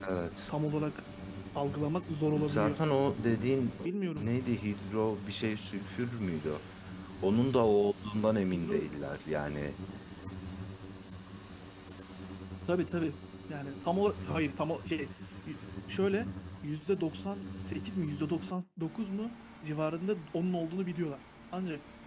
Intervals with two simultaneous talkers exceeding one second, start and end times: none

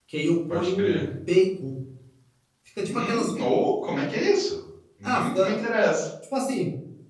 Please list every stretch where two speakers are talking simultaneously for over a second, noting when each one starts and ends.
none

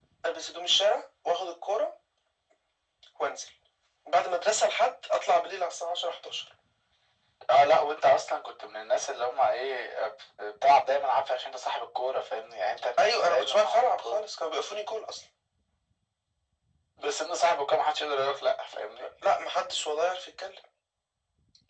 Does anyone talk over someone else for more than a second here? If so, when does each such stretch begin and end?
13.0-14.2

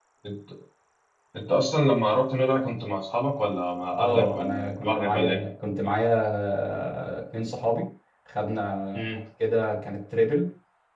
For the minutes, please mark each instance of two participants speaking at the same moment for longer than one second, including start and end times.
4.0-5.4

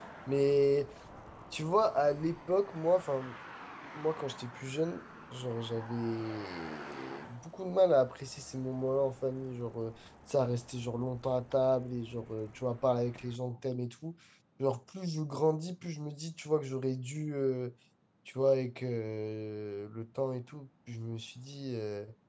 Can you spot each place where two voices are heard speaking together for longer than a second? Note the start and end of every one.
none

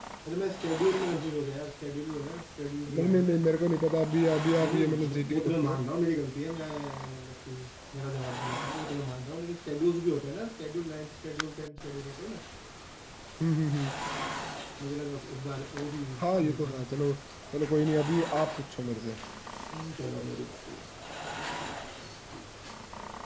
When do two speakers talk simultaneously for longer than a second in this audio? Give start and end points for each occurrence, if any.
4.6-5.8

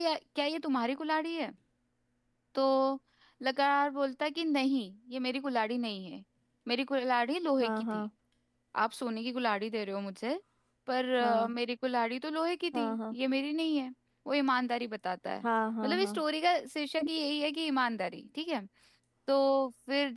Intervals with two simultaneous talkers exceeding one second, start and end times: none

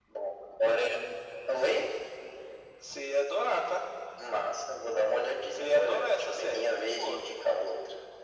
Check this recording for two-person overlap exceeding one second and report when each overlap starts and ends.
5.5-7.2

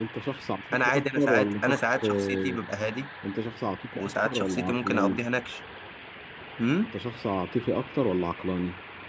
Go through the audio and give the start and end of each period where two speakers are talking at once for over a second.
0.7-2.6, 4.0-5.2

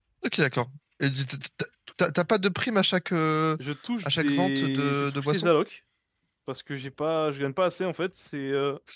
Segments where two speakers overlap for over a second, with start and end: 4.0-5.5

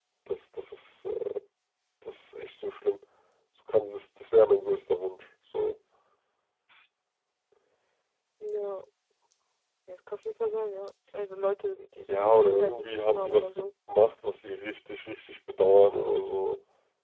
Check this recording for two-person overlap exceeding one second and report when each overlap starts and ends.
12.1-13.5

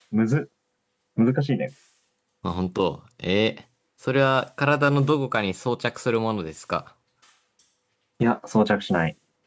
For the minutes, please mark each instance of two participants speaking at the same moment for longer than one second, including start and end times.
none

